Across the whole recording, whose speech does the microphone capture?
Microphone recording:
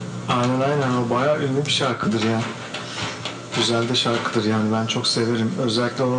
echo only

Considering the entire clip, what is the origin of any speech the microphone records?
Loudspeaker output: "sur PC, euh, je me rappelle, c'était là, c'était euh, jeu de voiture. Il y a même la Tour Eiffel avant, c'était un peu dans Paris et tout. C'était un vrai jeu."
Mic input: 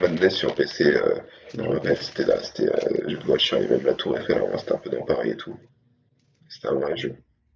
both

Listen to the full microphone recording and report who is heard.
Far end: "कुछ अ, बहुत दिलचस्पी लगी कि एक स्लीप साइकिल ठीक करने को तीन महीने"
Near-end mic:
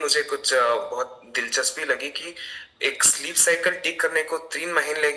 echo only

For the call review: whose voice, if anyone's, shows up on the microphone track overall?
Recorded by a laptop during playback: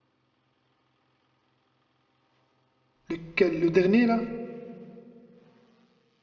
user only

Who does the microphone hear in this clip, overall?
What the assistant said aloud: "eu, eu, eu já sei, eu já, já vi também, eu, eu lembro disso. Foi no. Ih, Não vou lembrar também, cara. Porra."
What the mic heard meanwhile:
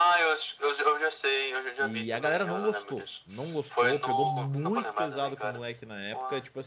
both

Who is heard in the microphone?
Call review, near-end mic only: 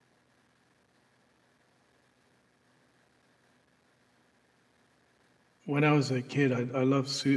user only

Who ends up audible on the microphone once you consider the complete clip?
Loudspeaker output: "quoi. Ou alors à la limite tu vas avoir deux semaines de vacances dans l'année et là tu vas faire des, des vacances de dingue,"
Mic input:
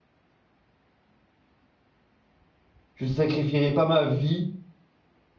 user only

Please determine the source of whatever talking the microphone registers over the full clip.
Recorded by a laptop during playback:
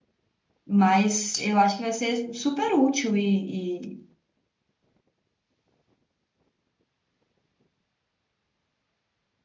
user only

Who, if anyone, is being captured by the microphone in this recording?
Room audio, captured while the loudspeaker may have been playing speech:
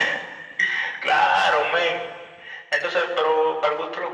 echo only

